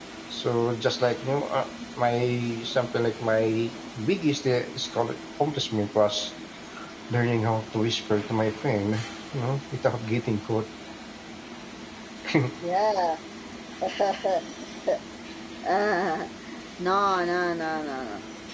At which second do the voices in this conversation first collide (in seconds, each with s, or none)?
none